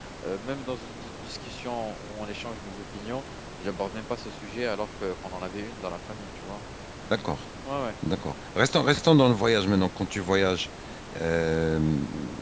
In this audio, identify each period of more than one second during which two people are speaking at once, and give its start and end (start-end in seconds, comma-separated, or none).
none